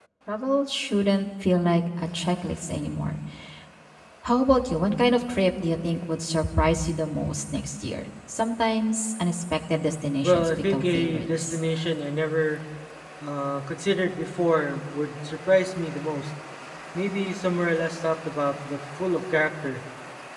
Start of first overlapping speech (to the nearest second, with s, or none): 10 s